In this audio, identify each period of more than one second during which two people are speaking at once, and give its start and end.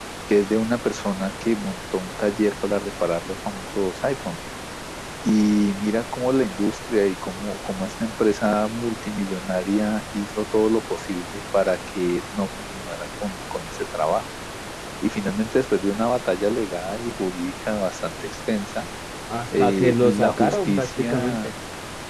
19.6-21.5

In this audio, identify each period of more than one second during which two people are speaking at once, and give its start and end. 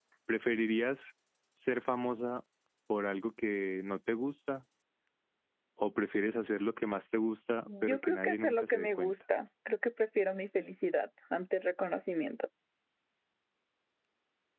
7.7-9.1

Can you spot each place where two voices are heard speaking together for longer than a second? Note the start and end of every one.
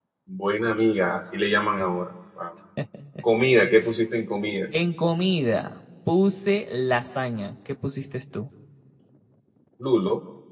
none

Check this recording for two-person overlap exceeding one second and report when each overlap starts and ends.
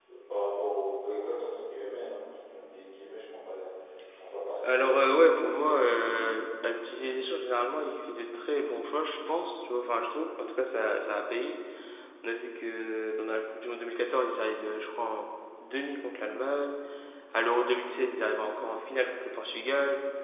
4.6-6.0

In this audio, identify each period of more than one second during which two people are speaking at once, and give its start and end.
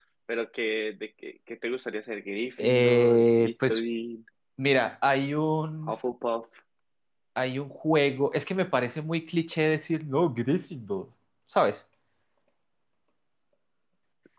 2.6-3.8

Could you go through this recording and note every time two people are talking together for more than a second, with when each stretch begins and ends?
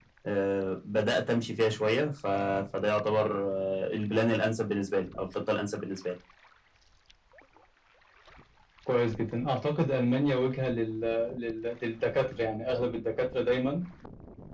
none

